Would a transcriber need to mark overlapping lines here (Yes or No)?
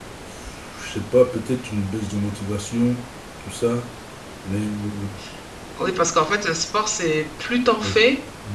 No